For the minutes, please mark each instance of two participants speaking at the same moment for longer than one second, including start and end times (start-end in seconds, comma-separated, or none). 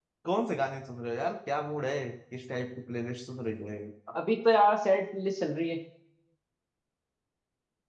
none